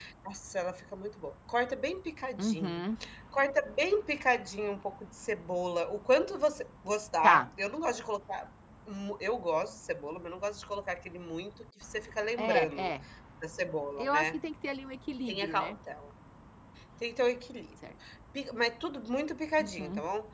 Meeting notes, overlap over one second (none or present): none